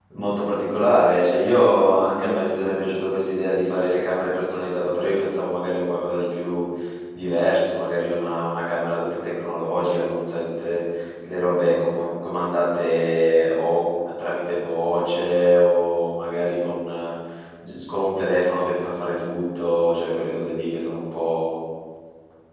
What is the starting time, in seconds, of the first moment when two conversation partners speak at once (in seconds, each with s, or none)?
none